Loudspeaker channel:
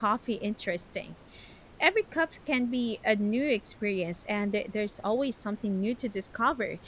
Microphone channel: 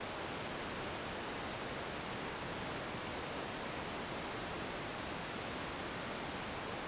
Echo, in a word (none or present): none